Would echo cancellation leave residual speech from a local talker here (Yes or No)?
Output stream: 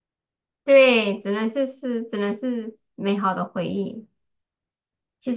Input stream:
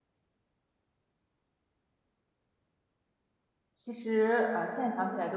Yes